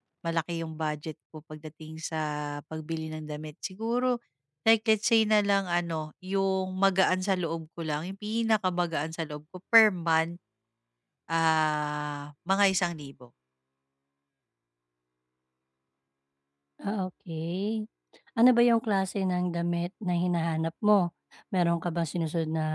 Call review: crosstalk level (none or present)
none